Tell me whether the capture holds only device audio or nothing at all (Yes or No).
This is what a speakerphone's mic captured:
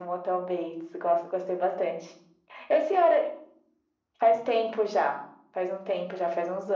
Yes